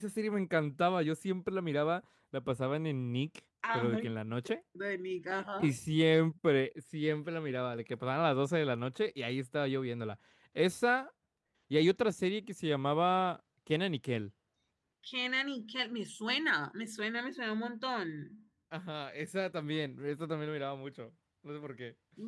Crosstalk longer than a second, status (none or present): none